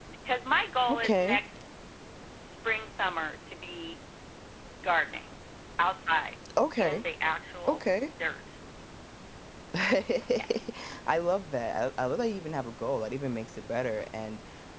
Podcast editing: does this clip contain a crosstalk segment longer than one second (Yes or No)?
No